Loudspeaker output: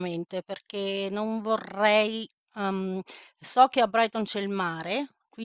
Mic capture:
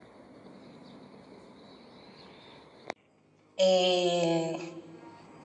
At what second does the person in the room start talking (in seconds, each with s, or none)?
3.6 s